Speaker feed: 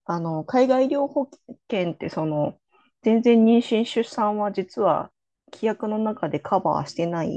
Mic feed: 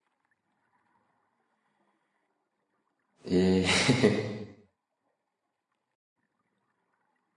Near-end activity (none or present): present